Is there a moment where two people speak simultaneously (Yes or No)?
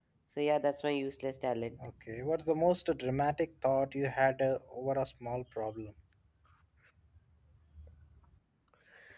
No